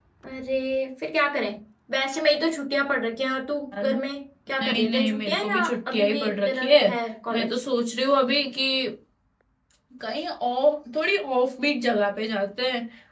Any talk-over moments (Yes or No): Yes